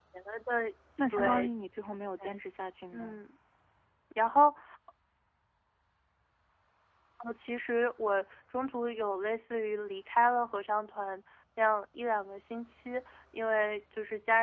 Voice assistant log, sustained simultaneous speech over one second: none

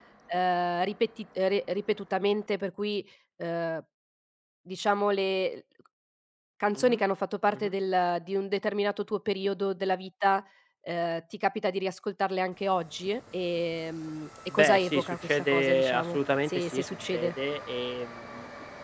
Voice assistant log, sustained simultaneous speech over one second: present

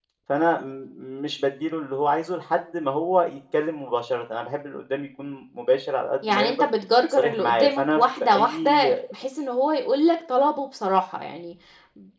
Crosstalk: present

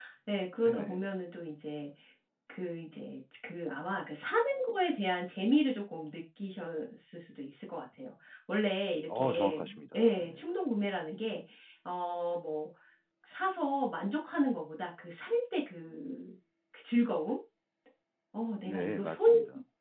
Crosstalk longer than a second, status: present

